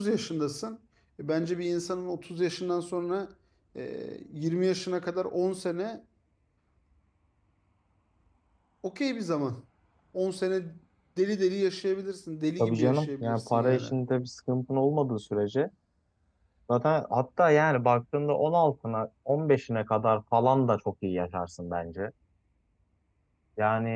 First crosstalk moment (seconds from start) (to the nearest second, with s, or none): 13 s